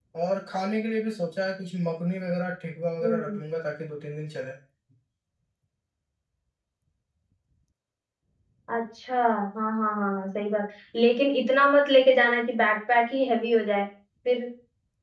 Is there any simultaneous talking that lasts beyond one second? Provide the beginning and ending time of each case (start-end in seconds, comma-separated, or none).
none